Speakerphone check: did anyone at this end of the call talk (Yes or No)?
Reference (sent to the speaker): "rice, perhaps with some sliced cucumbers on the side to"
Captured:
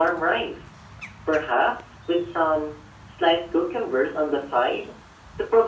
No